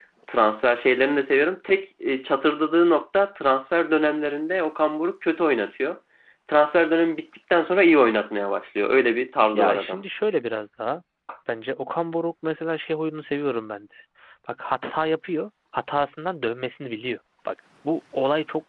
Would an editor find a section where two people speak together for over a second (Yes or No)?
No